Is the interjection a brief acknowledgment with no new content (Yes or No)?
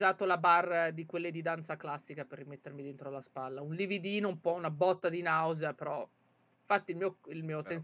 Yes